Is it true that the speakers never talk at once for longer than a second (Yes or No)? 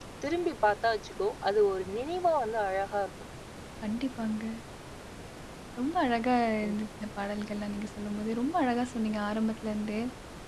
Yes